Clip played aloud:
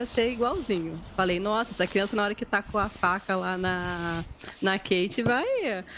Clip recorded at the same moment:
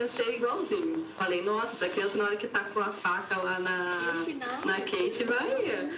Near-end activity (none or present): present